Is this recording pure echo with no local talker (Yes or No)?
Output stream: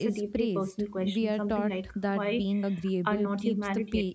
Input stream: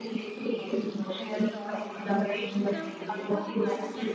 No